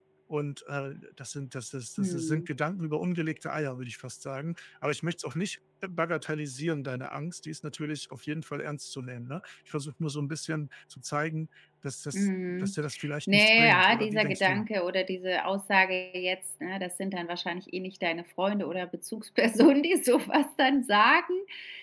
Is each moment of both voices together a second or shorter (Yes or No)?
No